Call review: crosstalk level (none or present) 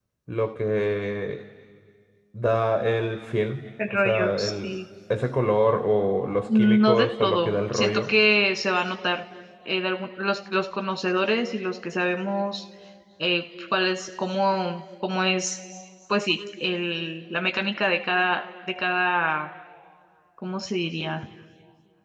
present